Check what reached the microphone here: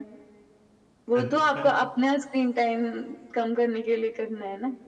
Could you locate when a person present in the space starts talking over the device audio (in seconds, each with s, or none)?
1.1 s